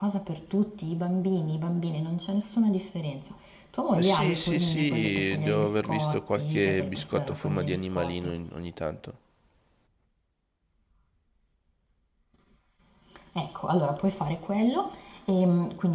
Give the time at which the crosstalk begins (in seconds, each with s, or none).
3.9 s